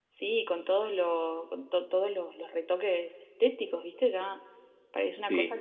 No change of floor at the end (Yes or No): Yes